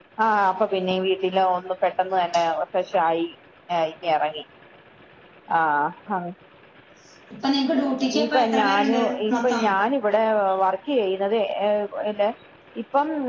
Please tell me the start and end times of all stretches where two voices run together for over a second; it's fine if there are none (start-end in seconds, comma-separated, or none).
8.2-9.6